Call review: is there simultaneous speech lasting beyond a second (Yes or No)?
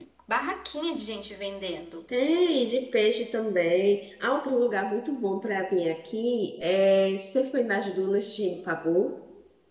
No